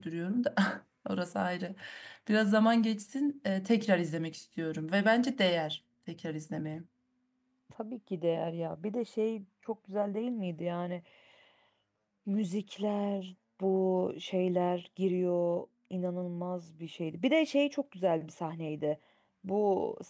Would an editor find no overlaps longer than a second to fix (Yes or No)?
Yes